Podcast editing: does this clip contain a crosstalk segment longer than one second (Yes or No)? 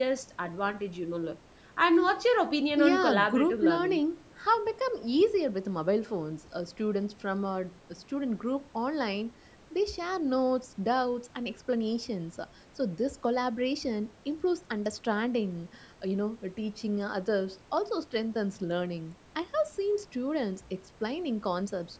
Yes